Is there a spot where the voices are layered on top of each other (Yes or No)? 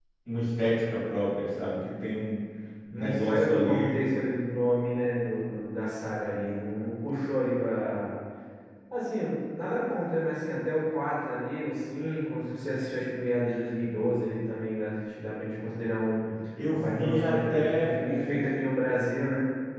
Yes